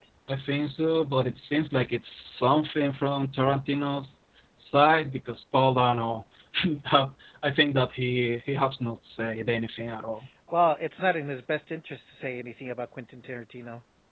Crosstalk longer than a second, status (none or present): none